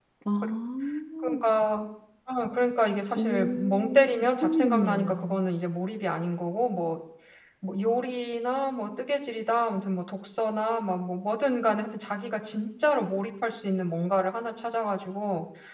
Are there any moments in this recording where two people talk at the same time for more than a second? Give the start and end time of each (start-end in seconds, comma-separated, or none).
3.1-5.4